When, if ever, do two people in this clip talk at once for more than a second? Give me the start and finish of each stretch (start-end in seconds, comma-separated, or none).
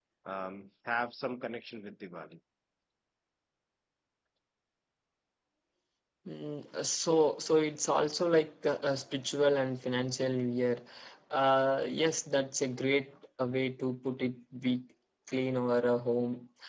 none